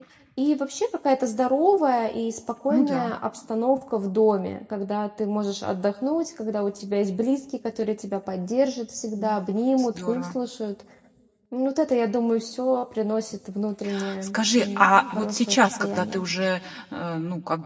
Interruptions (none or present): present